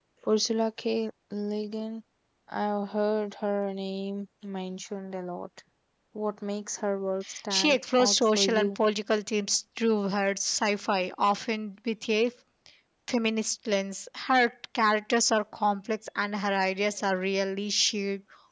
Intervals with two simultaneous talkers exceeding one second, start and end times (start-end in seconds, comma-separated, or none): 7.5-8.8